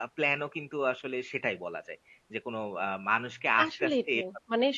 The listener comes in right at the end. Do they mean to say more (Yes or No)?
Yes